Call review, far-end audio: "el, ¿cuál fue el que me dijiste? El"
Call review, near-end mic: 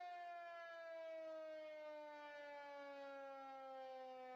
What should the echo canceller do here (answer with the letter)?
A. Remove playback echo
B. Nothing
B